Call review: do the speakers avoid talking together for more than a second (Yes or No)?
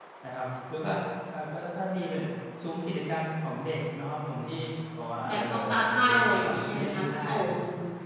No